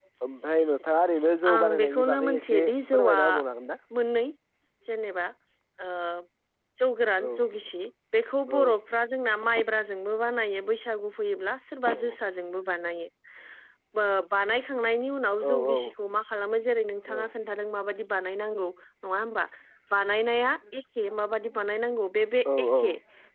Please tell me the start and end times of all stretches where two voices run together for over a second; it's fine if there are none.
1.5-3.2

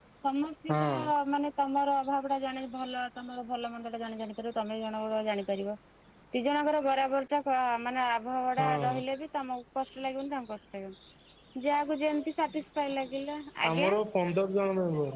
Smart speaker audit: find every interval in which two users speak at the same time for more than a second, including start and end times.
none

